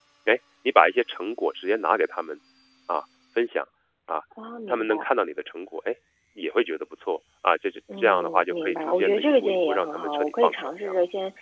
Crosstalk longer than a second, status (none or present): present